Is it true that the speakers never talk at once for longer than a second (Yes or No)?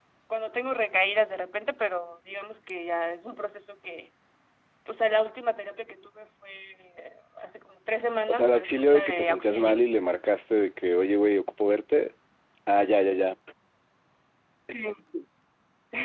No